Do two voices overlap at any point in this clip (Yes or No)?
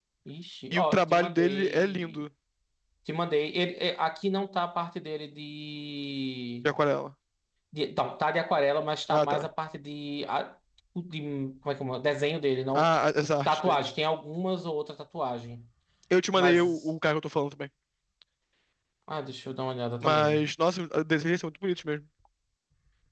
Yes